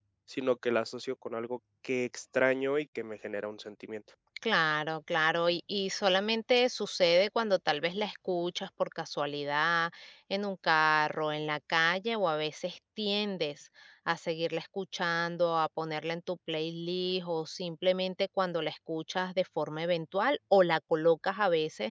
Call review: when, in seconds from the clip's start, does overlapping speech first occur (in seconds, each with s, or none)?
none